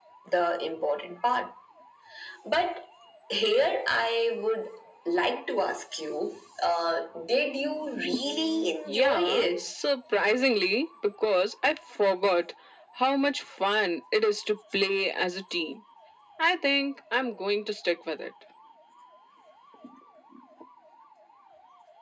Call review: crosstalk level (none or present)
present